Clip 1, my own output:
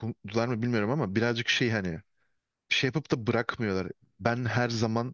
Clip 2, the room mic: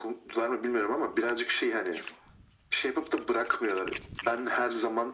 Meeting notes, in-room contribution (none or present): none